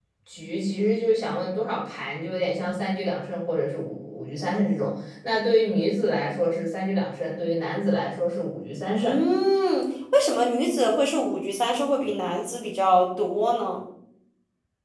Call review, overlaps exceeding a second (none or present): none